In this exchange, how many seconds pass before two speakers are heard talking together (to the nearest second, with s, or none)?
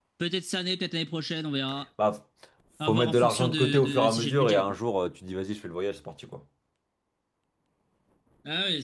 3 s